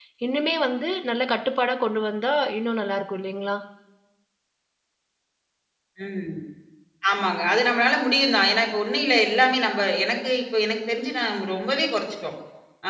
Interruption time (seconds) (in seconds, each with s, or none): none